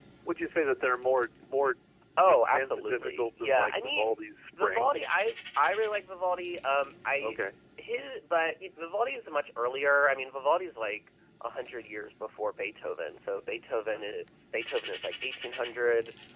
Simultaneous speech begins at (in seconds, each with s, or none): 2.2 s